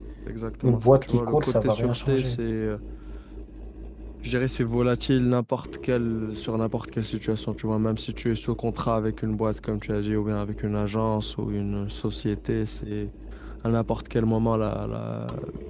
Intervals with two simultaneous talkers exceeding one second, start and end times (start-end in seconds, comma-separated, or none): 0.6-2.4